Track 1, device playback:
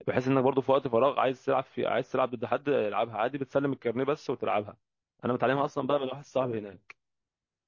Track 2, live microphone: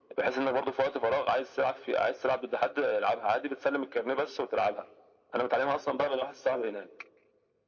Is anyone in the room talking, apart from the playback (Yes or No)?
No